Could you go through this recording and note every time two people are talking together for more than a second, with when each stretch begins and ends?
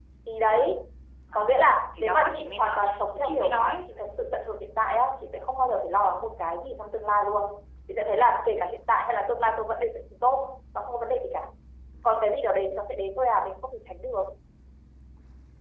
1.4-3.8

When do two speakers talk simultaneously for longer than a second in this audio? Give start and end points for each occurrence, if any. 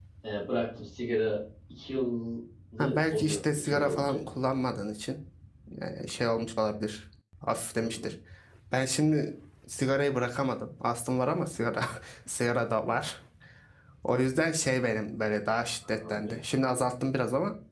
2.8-4.2

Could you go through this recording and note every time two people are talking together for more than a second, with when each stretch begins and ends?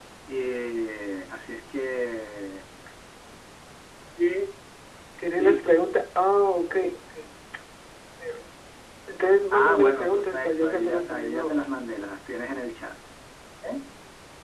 9.5-11.7

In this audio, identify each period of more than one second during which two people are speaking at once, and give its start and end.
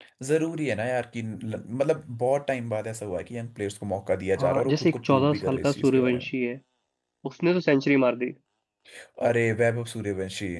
4.4-6.3

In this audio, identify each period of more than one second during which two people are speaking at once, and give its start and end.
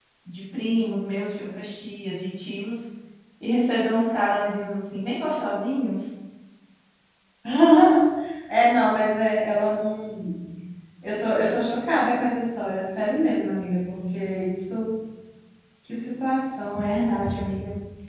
none

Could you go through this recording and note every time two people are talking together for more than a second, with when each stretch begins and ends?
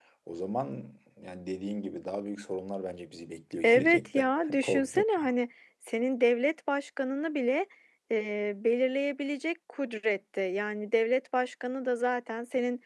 3.6-5.0

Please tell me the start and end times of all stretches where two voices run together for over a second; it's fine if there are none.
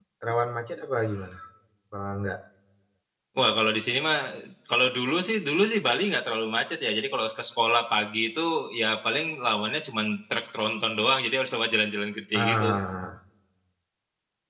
none

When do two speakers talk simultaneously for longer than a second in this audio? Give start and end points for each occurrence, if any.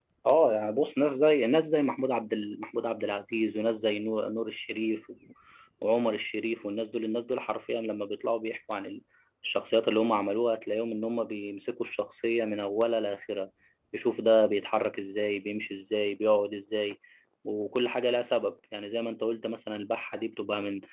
none

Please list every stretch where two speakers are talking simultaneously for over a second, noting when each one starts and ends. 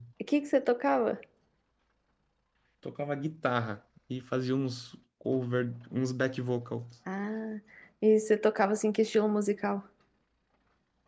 none

